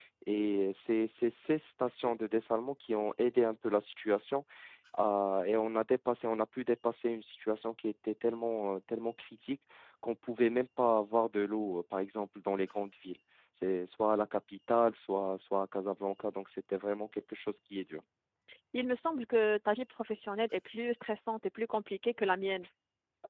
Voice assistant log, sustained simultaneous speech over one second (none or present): none